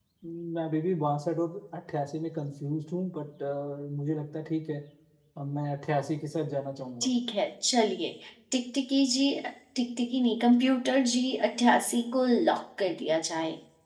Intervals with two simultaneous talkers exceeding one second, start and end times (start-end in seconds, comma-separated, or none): none